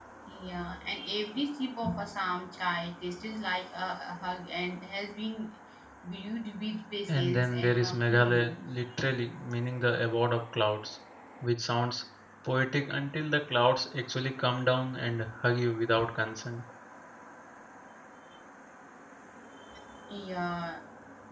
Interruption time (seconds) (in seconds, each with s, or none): 7.1 s